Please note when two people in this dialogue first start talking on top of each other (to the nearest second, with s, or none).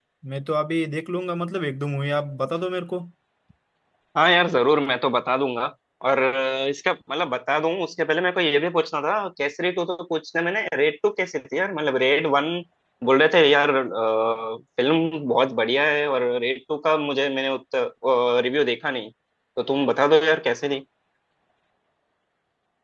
none